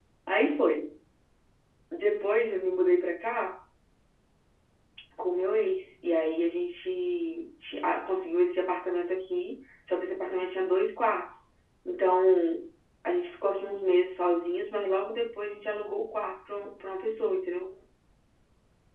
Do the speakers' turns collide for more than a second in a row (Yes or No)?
No